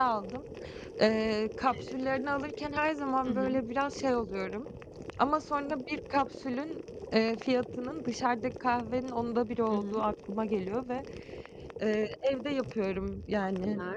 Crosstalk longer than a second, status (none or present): none